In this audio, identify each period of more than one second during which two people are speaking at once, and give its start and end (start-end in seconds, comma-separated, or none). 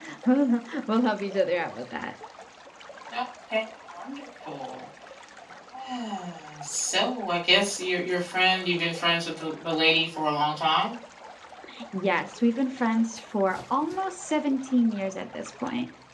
none